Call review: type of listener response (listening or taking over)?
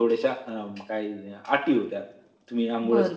taking over